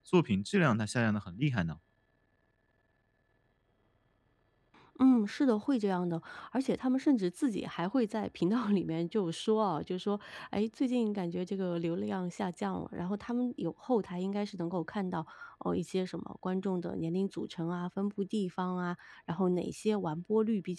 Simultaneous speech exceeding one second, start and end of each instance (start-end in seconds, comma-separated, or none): none